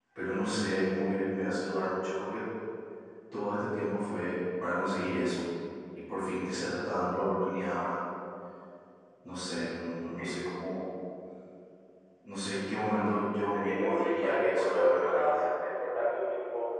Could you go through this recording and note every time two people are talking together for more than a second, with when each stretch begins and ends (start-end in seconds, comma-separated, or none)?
13.5-15.4